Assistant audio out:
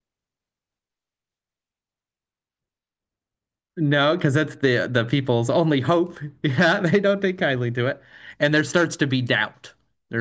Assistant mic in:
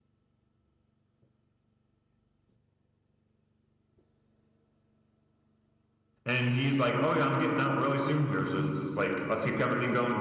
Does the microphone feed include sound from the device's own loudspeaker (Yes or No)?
No